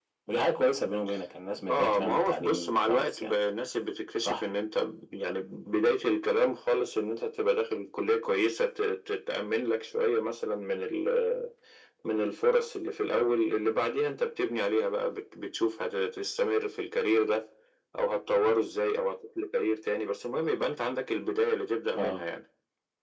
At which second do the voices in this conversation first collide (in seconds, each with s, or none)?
1.7 s